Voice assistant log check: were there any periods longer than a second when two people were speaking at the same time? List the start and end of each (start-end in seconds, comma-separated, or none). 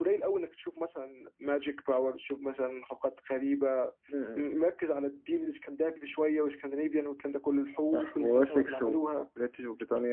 7.9-9.3